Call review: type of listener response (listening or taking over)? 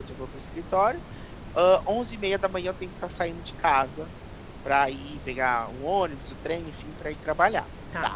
listening